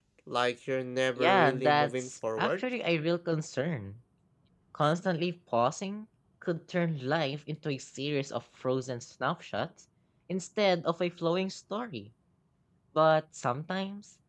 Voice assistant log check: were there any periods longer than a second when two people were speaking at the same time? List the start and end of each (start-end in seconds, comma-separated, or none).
1.2-2.6